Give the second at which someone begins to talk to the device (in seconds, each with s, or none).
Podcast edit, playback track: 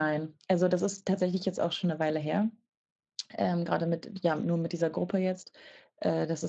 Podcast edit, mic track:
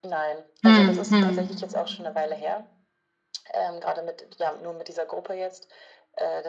0.6 s